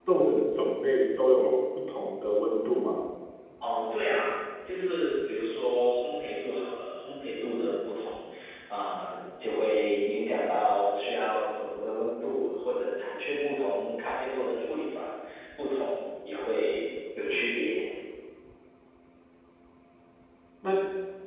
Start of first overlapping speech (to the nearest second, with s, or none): none